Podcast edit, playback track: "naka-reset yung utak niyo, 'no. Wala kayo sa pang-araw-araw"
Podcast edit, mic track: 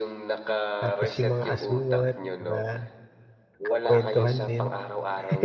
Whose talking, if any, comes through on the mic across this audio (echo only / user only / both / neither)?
both